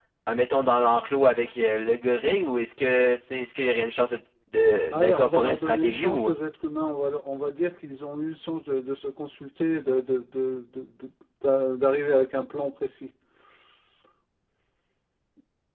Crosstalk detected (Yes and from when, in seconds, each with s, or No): Yes, from 4.9 s